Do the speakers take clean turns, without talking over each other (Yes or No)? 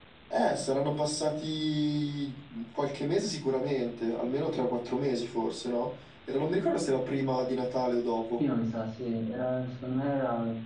Yes